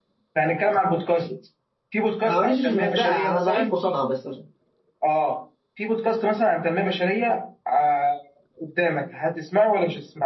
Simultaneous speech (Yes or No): Yes